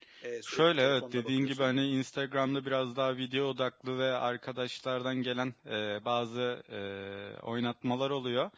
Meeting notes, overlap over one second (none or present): present